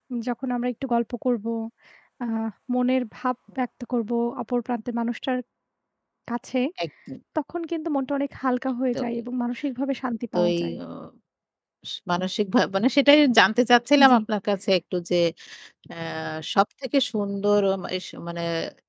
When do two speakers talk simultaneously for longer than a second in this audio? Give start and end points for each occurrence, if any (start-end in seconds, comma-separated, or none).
none